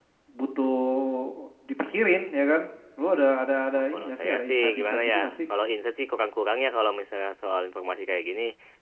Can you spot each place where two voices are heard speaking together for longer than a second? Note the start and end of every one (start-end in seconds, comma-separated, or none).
3.8-5.3